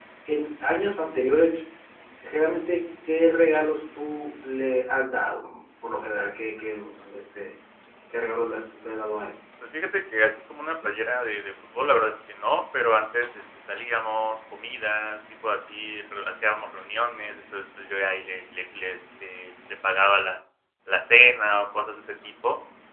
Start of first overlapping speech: none

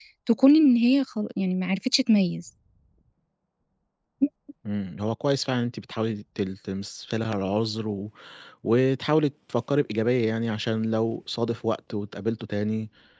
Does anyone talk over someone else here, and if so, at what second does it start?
none

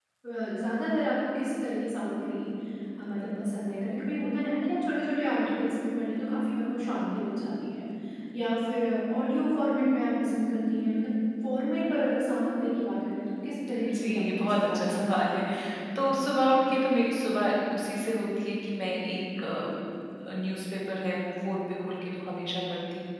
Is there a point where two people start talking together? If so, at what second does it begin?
13.7 s

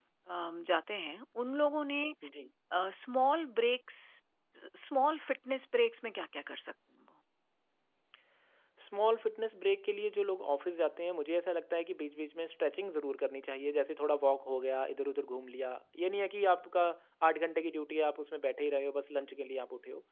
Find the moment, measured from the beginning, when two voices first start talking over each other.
none

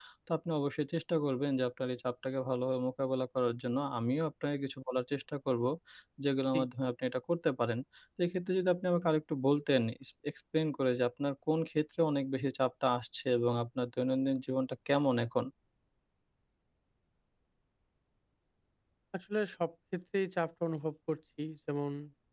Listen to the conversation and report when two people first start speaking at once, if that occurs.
none

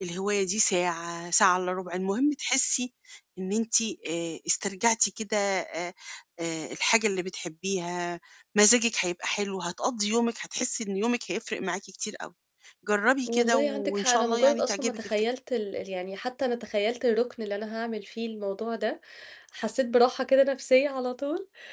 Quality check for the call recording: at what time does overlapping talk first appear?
13.3 s

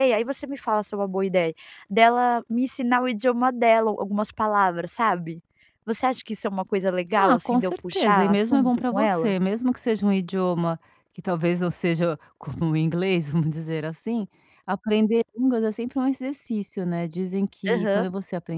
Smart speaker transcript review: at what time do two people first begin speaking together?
7.2 s

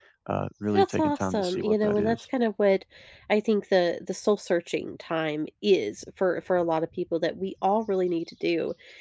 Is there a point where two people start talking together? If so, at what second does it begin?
0.7 s

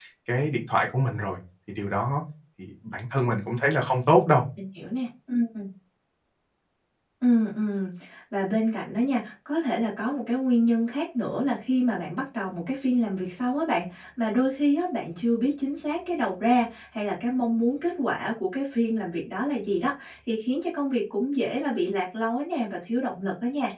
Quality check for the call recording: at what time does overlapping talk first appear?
none

